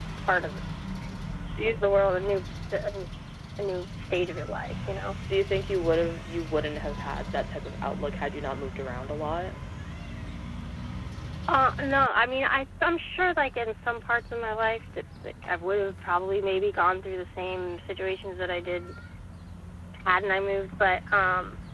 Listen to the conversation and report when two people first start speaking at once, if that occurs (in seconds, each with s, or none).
none